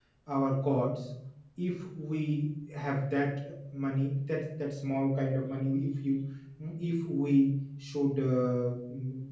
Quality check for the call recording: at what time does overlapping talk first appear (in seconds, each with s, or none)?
none